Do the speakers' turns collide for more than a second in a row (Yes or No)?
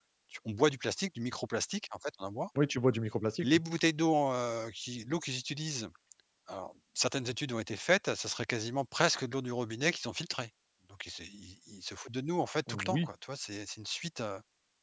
No